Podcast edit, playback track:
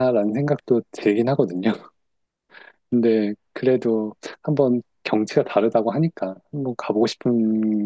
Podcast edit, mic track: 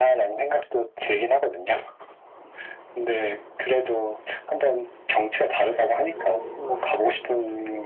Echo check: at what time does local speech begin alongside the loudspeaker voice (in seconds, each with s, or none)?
5.7 s